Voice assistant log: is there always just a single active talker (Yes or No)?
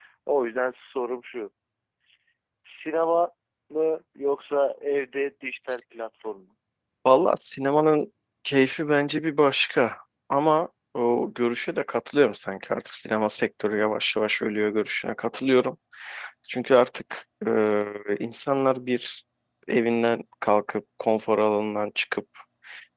Yes